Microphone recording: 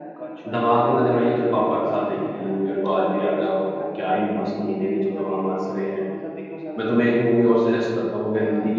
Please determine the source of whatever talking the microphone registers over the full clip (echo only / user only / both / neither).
both